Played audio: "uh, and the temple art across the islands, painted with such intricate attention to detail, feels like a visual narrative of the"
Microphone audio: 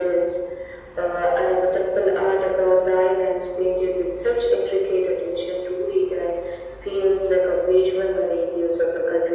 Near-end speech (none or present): none